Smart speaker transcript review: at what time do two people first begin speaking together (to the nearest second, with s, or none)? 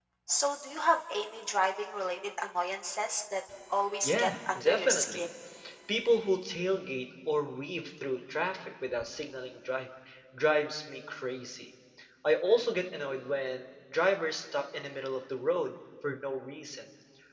4 s